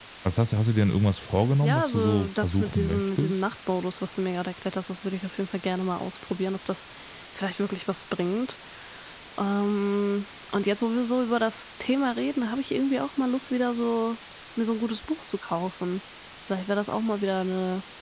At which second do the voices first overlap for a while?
1.6 s

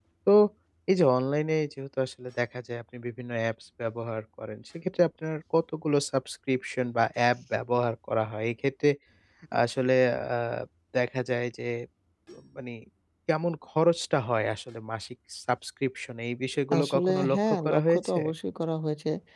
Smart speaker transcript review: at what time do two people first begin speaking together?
16.7 s

